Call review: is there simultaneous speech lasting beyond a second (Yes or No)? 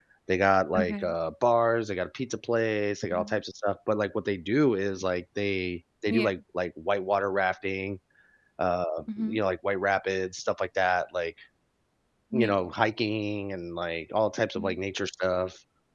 No